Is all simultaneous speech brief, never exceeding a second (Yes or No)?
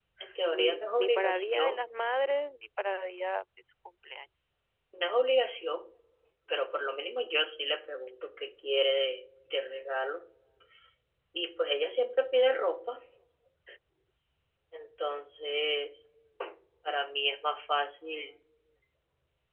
No